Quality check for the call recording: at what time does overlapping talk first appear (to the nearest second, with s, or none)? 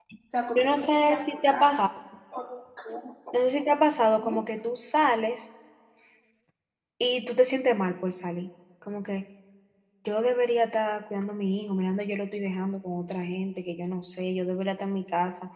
1 s